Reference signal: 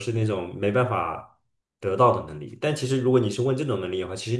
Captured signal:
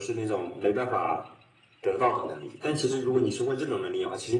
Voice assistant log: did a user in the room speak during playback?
No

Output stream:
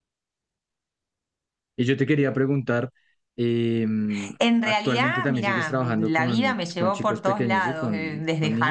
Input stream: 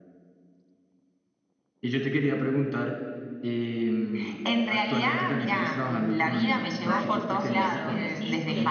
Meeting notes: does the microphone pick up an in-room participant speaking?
Yes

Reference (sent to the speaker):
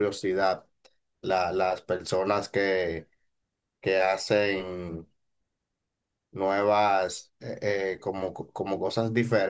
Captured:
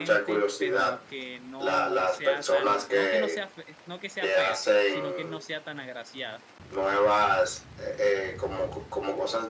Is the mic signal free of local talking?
No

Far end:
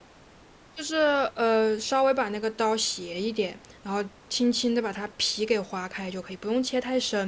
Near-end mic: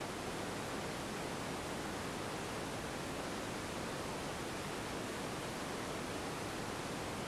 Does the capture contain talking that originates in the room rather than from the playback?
No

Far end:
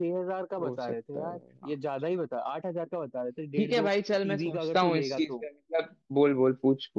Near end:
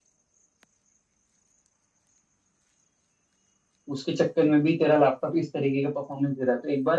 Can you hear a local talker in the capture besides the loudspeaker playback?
Yes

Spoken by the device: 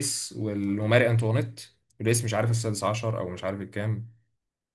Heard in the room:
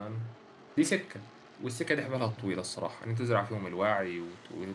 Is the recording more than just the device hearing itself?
Yes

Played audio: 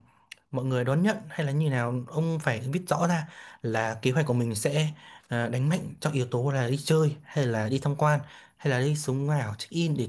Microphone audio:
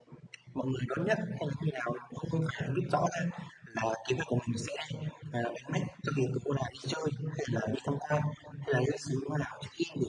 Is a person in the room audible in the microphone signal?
No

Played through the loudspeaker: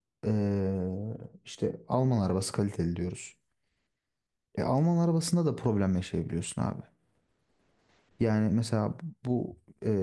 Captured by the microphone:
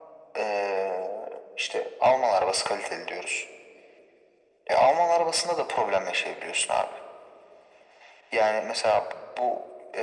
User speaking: No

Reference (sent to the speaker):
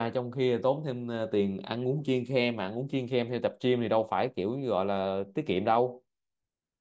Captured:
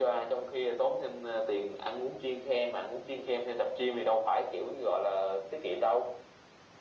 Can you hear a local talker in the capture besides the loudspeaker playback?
No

